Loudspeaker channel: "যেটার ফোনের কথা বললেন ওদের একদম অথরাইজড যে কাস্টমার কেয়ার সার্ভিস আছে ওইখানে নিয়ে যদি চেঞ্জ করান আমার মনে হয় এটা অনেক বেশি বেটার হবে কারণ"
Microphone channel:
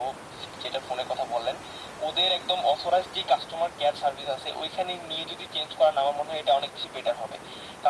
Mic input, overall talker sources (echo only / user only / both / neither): echo only